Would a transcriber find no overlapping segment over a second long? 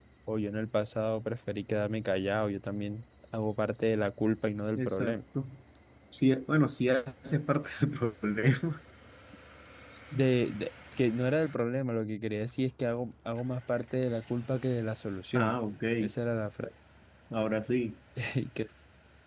Yes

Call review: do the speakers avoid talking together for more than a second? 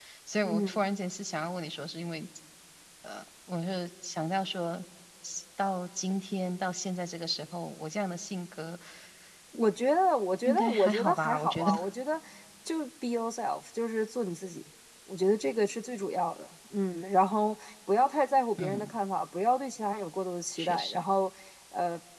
No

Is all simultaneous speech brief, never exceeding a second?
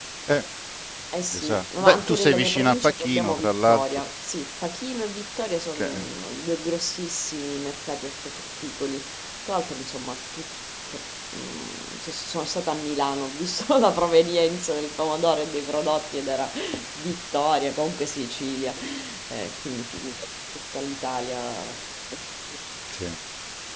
No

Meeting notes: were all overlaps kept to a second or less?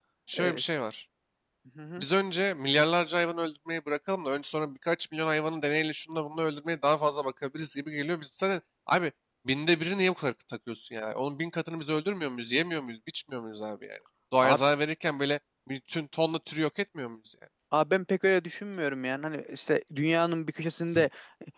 Yes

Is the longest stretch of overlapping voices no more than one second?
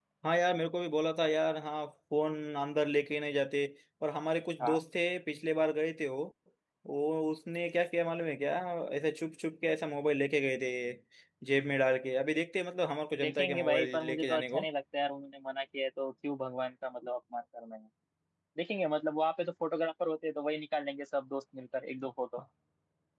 No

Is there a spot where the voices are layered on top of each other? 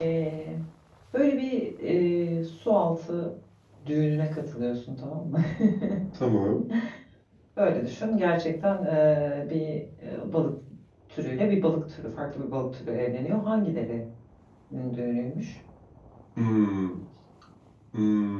No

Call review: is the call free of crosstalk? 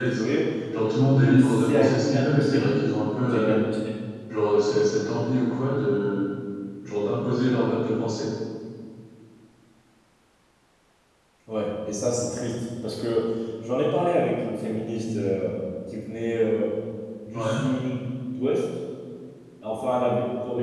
No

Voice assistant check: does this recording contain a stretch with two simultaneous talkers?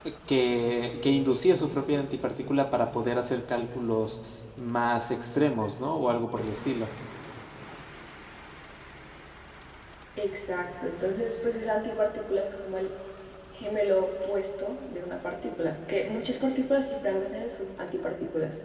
No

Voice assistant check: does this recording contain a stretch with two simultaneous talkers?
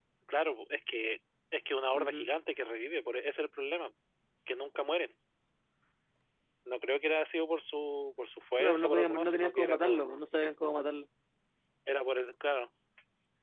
Yes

